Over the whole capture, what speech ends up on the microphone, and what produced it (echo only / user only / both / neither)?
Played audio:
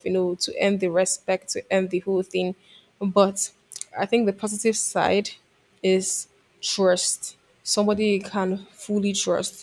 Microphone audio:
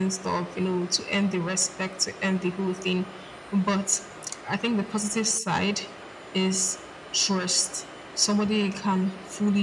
echo only